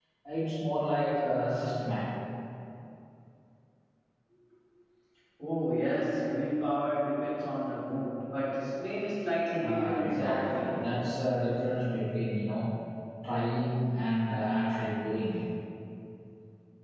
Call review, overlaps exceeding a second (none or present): present